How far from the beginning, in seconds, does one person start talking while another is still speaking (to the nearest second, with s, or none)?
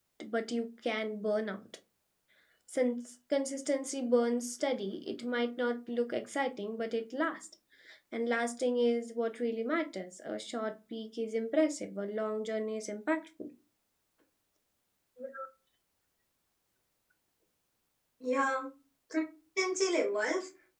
none